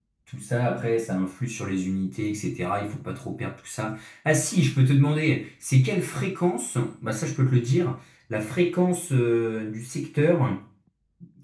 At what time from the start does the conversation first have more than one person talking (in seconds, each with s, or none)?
none